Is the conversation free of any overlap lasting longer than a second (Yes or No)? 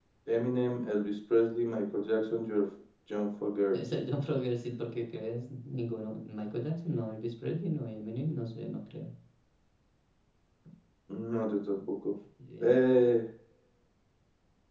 Yes